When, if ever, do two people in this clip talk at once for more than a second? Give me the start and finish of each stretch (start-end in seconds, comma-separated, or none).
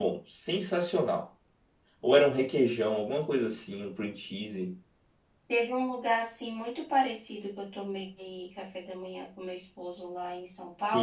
none